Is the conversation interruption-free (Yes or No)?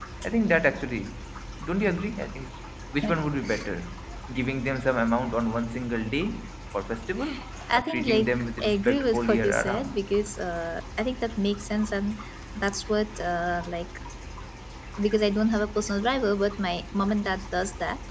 No